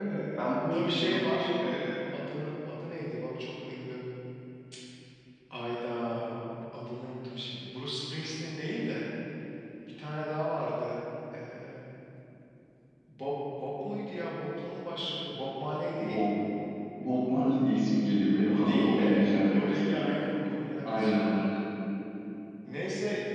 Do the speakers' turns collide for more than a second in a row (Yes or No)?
Yes